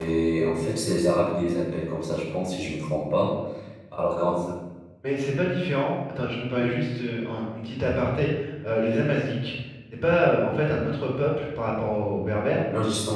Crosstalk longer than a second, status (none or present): none